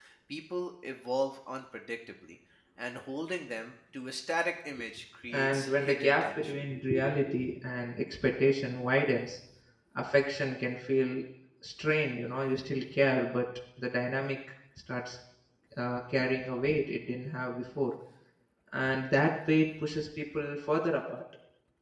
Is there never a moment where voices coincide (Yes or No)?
No